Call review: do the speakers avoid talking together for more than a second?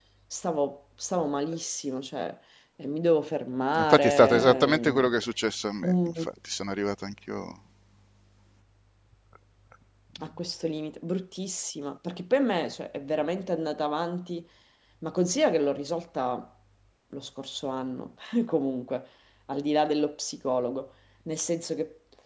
No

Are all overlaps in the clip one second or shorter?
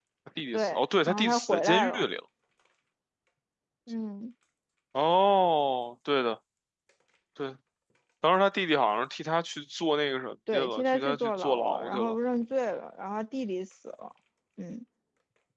No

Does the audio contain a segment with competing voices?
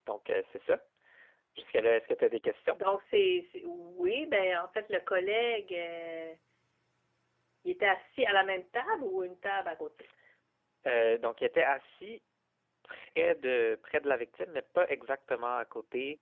No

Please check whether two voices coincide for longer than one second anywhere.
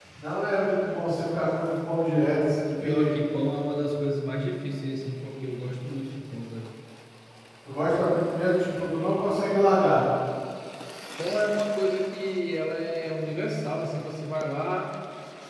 No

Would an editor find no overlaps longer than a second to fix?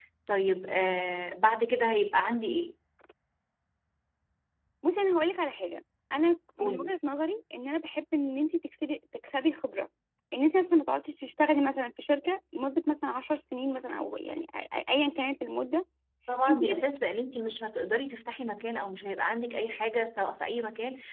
Yes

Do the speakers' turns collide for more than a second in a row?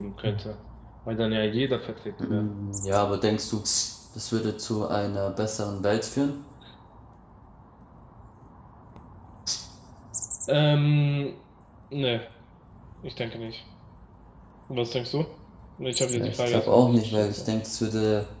Yes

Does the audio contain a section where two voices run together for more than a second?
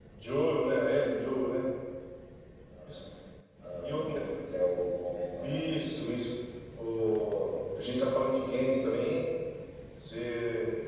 No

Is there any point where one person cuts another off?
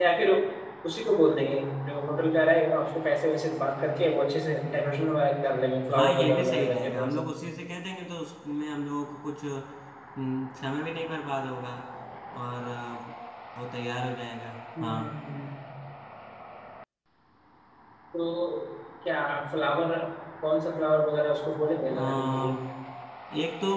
Yes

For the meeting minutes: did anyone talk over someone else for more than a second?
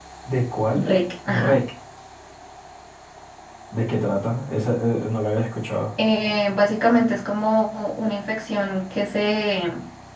No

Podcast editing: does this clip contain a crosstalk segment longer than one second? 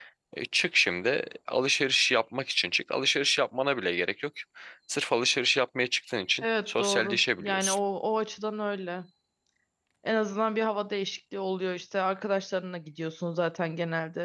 Yes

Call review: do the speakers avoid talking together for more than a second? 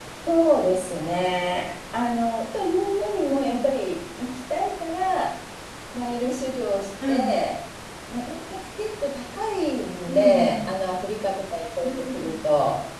Yes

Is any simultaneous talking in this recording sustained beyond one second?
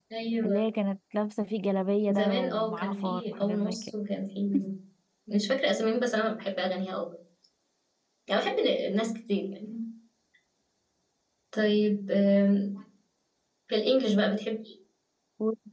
Yes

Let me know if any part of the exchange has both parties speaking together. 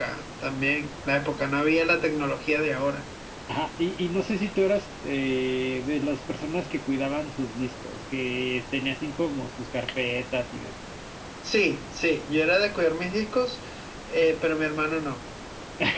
No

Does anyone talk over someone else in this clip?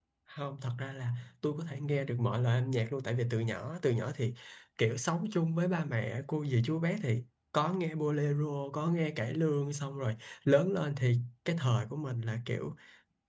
No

